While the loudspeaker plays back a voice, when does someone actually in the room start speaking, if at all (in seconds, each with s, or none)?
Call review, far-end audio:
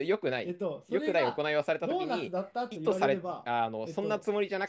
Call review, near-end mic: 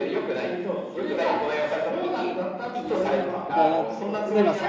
3.5 s